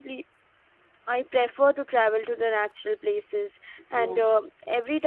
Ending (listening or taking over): listening